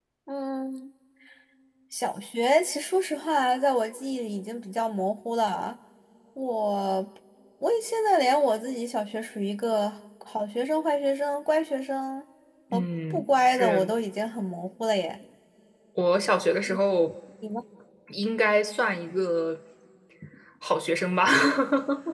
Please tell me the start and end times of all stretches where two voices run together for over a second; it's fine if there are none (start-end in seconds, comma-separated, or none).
12.7-13.9